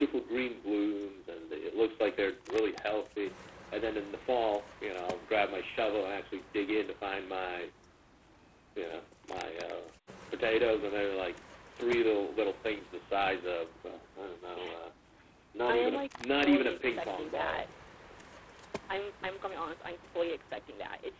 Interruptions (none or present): present